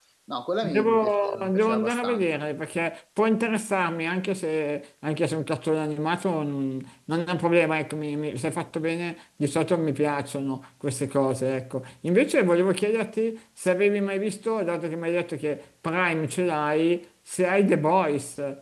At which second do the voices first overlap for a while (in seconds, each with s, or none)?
0.7 s